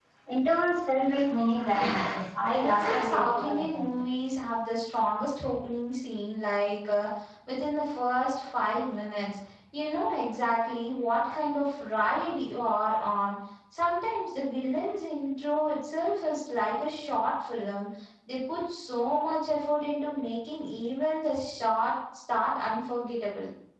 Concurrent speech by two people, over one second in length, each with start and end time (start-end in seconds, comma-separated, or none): 2.5-3.8